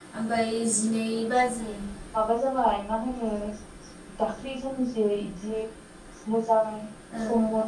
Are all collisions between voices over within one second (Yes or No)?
Yes